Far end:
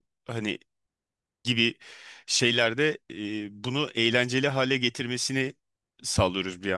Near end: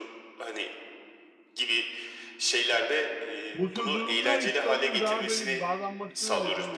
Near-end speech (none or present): present